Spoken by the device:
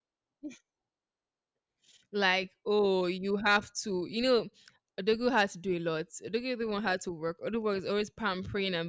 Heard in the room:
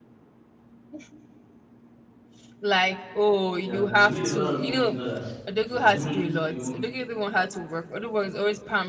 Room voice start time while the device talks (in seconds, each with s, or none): 3.6 s